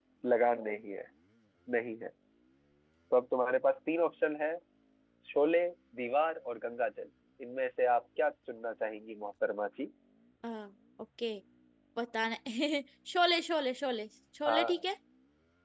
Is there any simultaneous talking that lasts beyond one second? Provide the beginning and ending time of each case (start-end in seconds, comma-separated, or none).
none